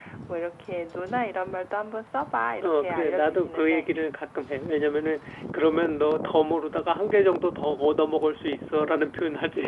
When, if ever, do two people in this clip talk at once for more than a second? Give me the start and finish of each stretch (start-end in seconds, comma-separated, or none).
2.6-3.9